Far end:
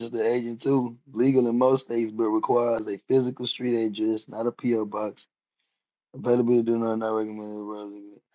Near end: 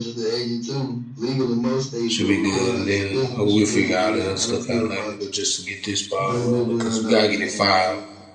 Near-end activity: present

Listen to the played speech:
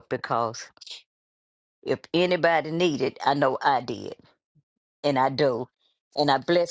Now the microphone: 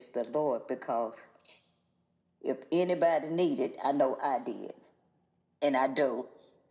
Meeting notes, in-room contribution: none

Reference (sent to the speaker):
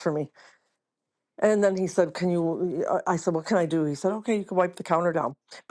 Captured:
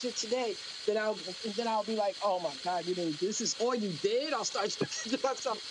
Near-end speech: present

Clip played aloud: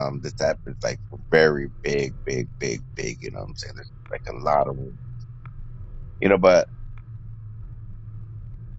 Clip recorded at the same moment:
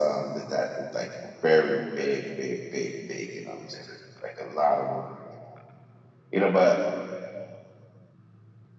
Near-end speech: none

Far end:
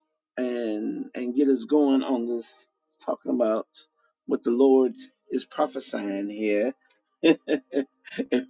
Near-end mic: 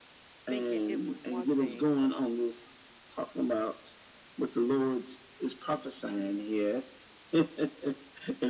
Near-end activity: present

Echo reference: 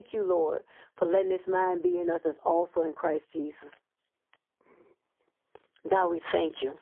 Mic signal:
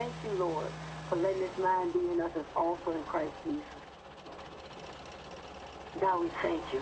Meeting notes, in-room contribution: none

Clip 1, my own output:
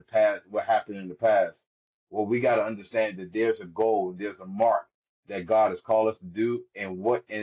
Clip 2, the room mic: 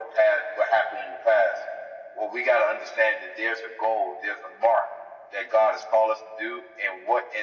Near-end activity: none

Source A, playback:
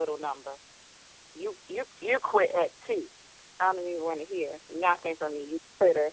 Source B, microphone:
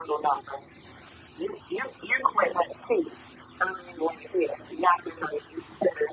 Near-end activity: none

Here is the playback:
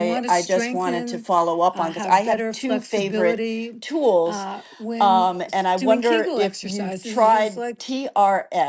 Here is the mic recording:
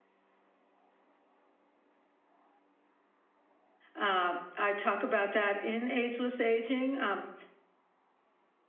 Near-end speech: present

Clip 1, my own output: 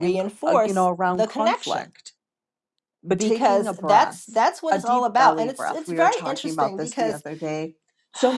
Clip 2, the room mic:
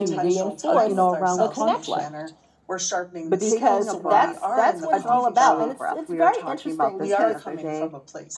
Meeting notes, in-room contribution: present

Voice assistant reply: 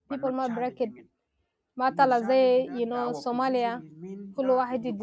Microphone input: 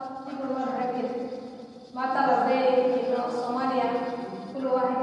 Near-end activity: none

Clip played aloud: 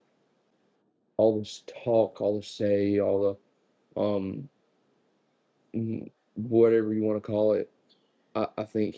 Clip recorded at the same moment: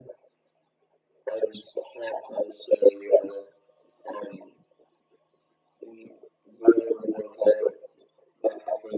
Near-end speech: none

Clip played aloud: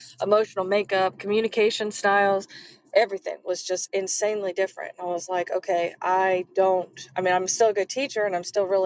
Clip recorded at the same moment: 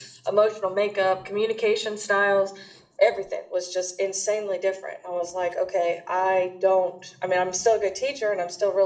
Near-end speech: none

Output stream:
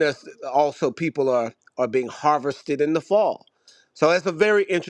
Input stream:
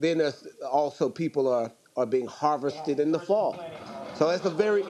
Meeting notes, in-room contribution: present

